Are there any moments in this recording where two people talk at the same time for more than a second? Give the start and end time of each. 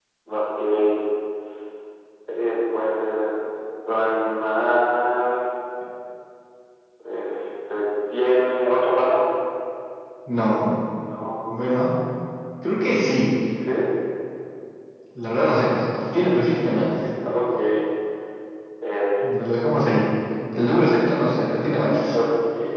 none

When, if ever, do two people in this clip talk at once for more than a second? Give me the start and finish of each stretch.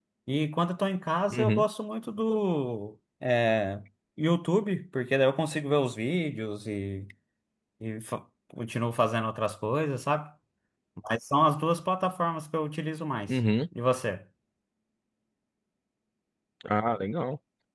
none

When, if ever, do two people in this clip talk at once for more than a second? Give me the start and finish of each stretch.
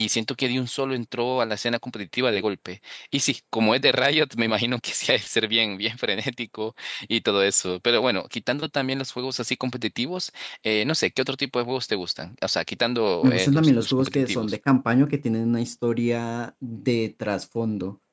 13.2-14.6

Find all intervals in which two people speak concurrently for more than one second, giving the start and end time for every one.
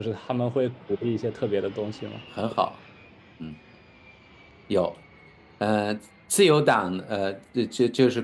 none

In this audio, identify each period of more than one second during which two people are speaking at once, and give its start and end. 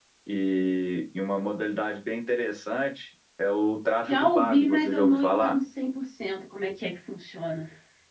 4.1-5.5

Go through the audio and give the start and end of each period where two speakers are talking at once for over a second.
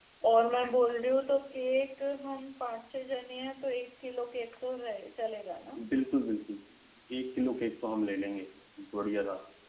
none

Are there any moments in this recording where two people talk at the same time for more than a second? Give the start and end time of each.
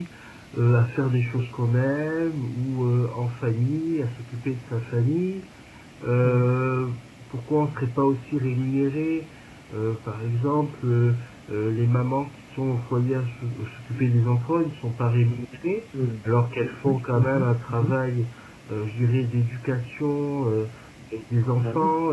16.6-17.9

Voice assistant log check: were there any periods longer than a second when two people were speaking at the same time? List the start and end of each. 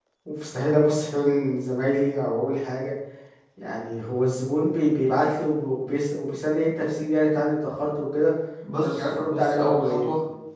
8.8-10.1

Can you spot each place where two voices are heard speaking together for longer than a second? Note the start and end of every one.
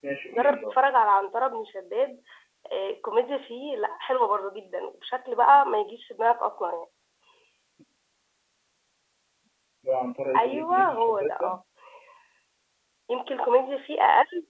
10.4-11.6

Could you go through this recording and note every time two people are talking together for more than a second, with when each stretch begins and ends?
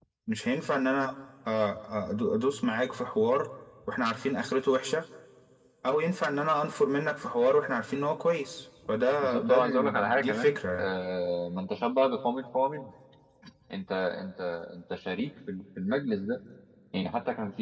9.2-10.9

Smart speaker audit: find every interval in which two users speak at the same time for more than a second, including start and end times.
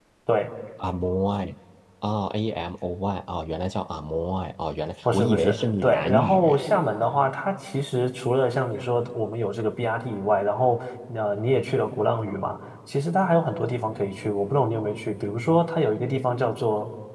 5.0-6.6

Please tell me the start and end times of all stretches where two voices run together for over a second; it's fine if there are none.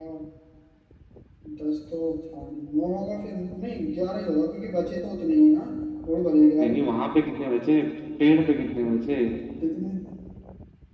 none

